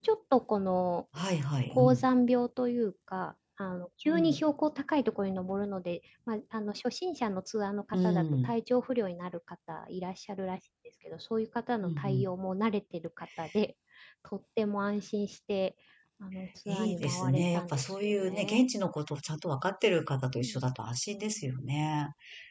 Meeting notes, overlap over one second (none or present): present